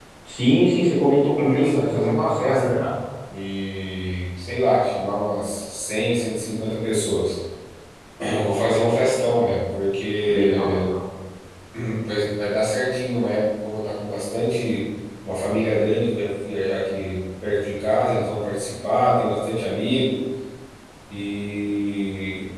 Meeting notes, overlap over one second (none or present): present